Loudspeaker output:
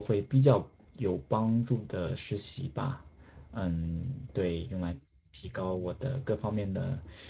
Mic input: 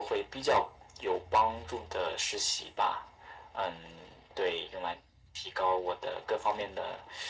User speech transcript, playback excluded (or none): none